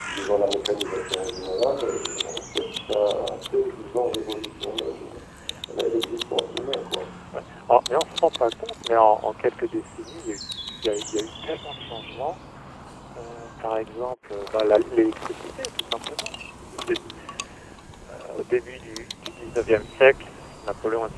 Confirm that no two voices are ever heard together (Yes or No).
Yes